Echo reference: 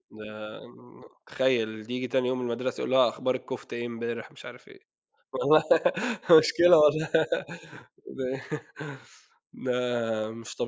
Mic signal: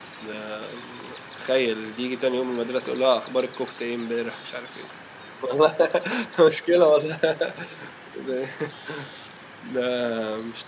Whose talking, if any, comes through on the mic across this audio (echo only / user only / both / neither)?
echo only